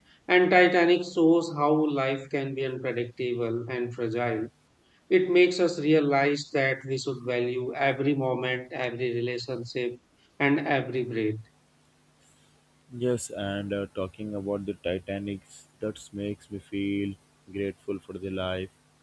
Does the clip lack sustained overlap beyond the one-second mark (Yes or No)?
Yes